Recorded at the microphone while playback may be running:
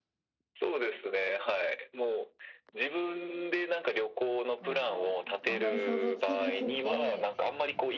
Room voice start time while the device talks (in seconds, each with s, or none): 4.6 s